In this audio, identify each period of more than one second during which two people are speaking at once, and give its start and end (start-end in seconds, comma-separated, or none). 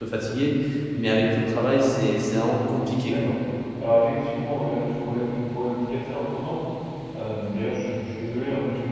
none